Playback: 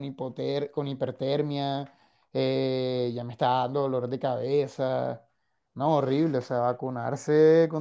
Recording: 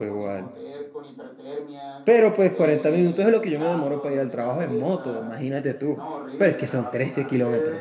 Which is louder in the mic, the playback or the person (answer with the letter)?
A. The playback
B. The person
B